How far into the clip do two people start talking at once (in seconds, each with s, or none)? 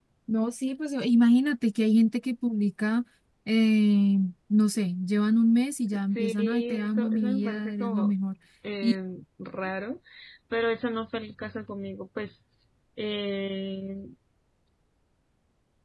6.2 s